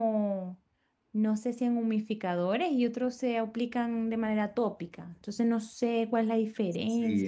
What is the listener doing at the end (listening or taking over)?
taking over